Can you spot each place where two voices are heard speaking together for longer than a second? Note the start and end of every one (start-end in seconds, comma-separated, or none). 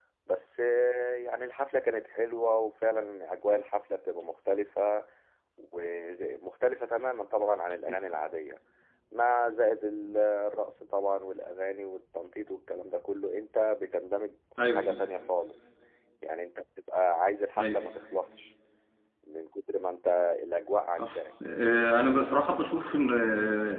none